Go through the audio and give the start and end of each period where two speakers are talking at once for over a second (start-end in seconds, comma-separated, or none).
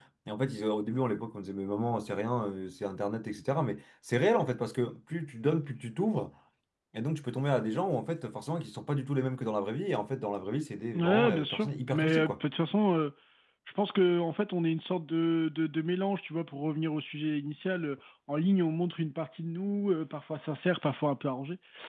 10.9-12.3